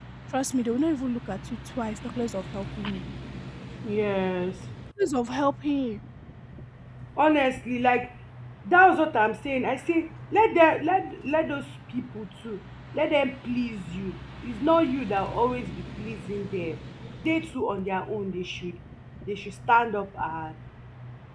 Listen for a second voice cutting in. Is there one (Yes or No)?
No